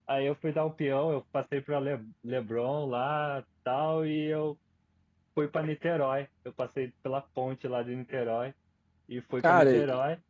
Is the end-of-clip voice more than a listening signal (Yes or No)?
Yes